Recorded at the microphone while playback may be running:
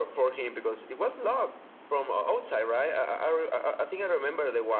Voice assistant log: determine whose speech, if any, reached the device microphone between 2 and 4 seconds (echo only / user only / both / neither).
echo only